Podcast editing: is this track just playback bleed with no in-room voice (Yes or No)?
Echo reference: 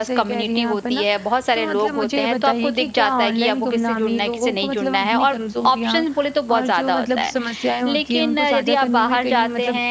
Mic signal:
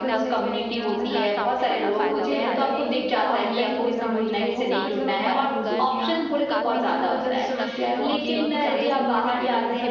No